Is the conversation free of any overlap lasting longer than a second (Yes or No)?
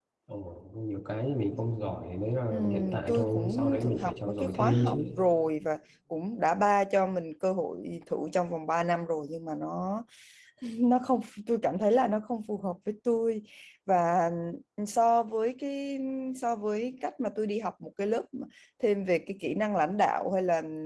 No